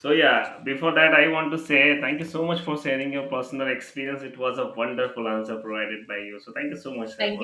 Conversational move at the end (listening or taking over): taking over